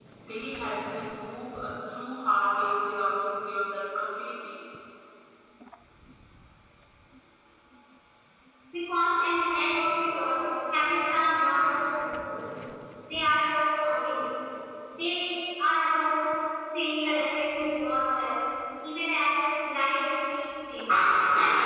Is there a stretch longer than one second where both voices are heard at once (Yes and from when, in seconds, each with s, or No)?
No